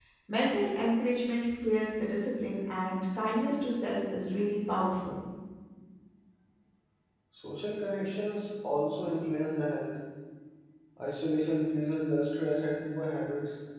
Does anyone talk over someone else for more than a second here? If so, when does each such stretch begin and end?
none

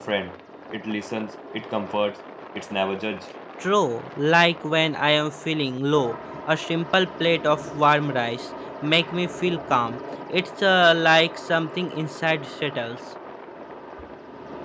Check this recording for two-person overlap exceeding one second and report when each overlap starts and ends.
none

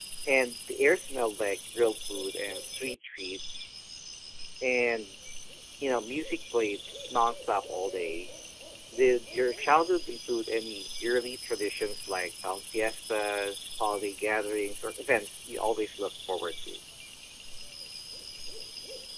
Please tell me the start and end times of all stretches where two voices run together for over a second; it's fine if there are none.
none

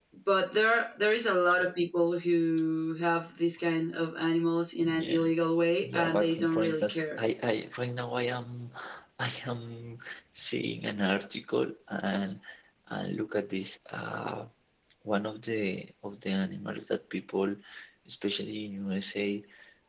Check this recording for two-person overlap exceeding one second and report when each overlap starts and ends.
5.8-7.2

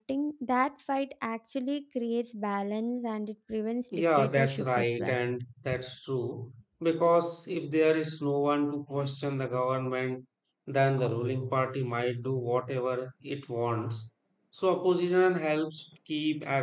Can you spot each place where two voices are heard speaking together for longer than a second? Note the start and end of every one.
3.9-5.2

